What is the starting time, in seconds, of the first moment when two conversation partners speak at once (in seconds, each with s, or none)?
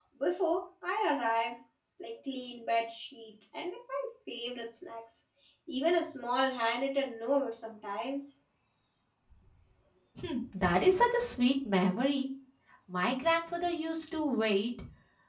none